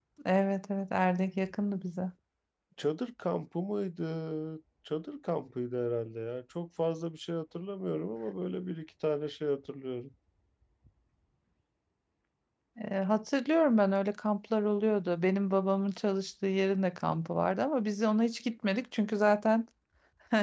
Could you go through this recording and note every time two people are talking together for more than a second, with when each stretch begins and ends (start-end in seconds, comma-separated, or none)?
none